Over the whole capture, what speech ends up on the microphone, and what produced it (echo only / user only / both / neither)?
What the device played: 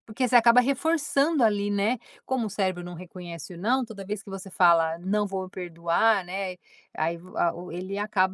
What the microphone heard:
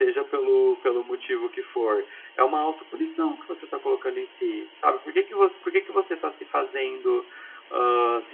user only